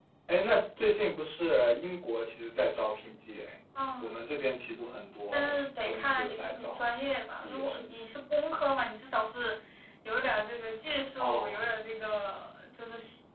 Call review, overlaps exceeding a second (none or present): present